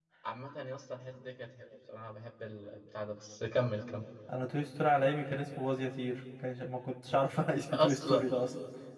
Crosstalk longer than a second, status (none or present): none